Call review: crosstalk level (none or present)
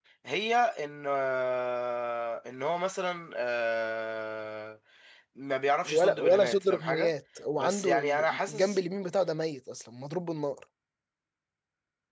present